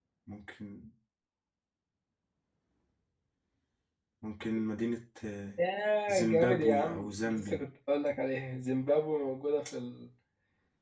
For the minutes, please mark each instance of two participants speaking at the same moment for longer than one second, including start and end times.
6.1-7.6

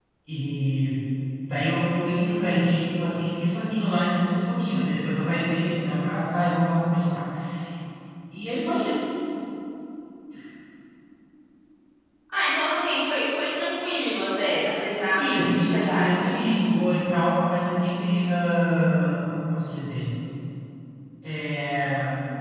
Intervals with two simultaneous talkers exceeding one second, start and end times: 15.1-16.6

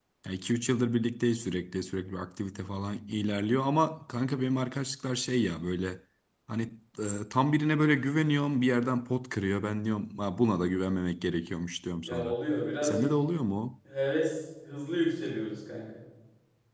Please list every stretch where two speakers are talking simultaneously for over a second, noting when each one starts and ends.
none

